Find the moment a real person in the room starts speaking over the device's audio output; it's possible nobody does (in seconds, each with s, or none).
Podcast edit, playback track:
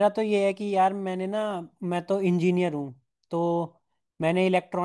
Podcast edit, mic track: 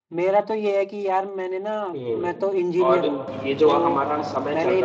1.9 s